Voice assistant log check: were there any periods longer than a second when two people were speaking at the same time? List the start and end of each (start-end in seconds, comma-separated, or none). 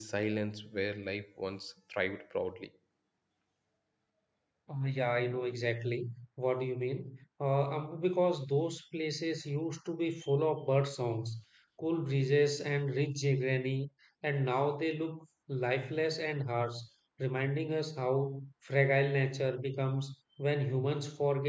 none